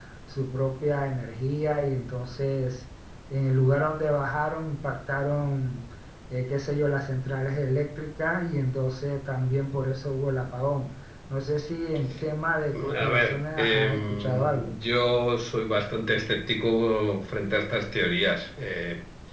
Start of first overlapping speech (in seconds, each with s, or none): 12.7 s